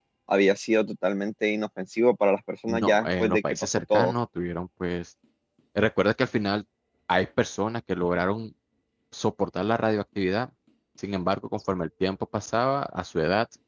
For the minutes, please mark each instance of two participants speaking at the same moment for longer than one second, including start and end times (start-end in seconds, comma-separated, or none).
2.7-4.1